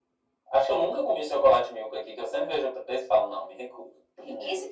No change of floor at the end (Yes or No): No